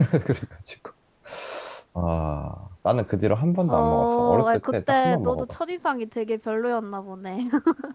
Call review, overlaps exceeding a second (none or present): present